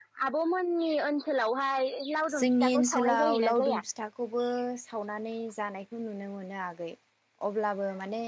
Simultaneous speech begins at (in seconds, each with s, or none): 2.3 s